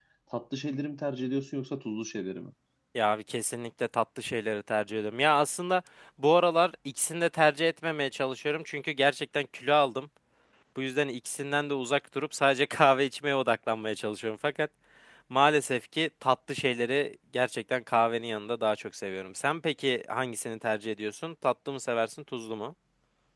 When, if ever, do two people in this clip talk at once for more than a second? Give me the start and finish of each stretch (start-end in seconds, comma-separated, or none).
none